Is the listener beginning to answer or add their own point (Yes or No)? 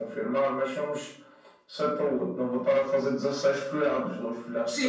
Yes